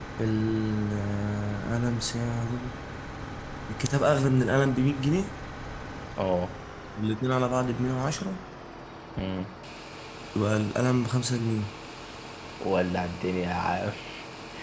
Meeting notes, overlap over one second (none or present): none